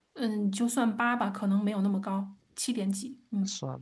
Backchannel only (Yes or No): No